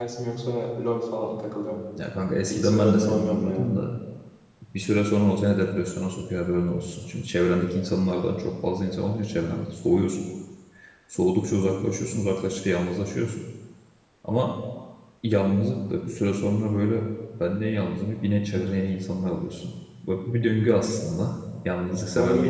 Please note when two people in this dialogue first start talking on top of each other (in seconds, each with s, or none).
2.5 s